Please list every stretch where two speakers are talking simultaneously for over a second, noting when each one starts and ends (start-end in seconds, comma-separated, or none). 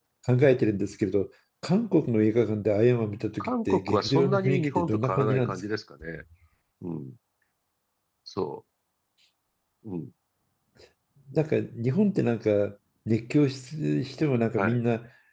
3.4-5.6